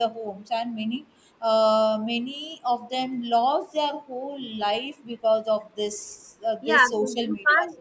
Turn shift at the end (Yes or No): Yes